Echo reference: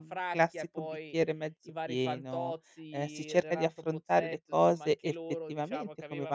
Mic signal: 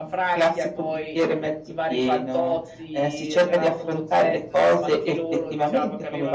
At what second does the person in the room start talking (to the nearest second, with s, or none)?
none